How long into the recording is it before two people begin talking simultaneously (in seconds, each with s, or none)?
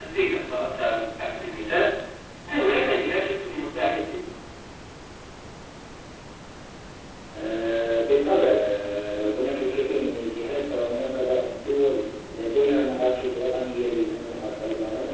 none